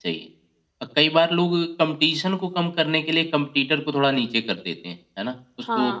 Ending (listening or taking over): taking over